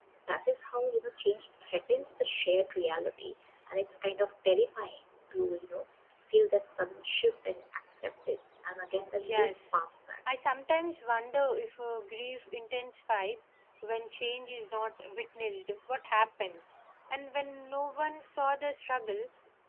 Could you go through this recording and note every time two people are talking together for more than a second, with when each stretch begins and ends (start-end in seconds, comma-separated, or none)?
none